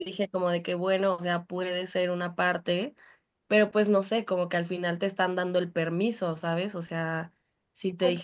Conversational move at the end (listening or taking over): listening